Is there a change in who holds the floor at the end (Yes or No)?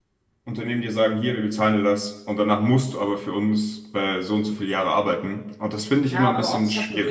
Yes